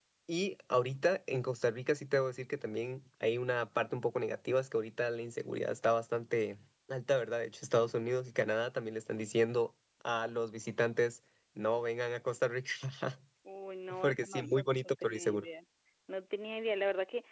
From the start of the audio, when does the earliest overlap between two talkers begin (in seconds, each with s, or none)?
14.0 s